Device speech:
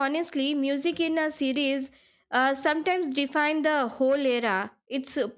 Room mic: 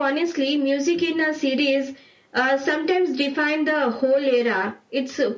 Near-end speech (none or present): none